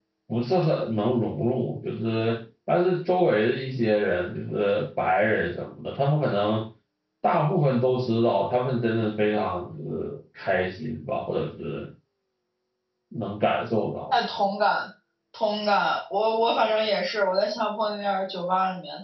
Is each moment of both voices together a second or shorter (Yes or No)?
Yes